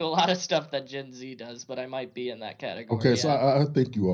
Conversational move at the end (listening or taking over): taking over